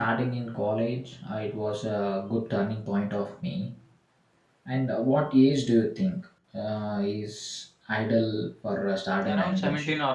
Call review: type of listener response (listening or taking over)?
taking over